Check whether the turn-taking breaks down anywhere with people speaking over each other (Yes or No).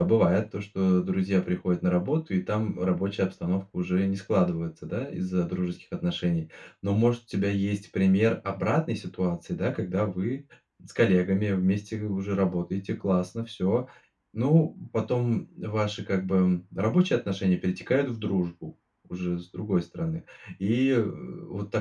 No